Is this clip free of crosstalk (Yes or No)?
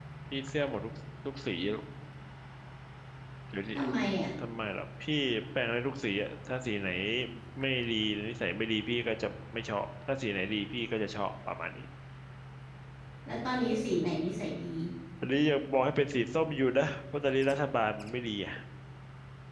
Yes